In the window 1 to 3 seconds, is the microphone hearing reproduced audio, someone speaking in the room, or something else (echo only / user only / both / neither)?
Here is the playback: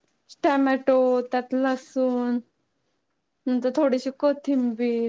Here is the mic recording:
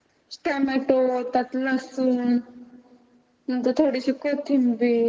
echo only